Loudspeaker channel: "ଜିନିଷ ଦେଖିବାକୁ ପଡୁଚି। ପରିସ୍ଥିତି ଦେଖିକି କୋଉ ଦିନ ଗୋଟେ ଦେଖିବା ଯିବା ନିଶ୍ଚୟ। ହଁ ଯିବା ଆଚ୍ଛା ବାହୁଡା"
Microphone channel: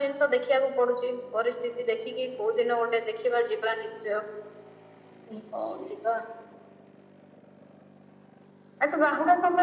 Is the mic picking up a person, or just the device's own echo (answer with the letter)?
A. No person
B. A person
A